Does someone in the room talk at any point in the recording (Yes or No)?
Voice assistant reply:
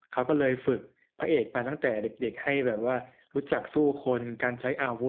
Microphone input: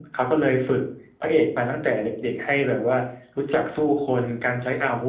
No